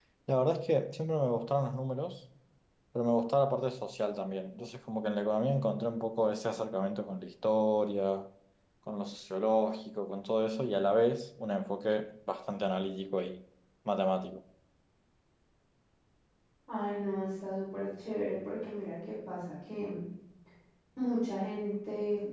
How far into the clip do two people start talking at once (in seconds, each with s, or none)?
none